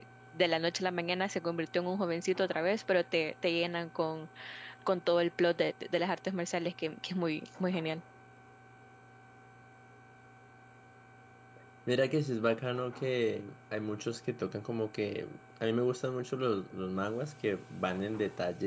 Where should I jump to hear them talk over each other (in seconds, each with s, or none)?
none